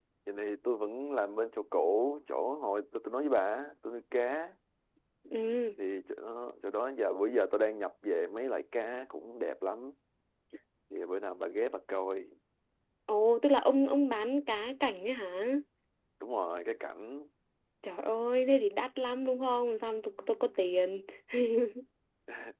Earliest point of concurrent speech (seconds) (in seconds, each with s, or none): none